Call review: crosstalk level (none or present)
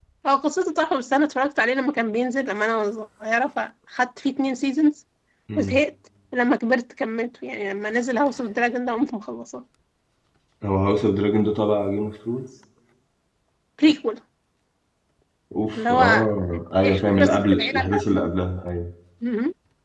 present